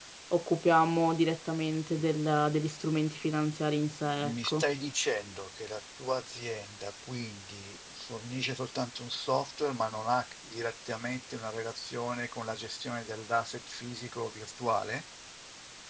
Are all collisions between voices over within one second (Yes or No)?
Yes